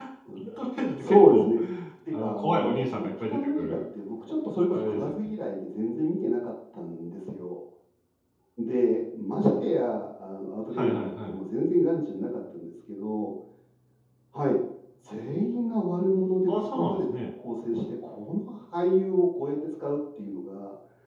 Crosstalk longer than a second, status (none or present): present